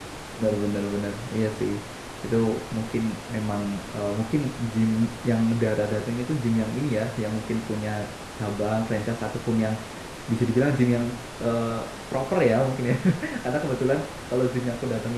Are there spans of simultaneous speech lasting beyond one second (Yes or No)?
No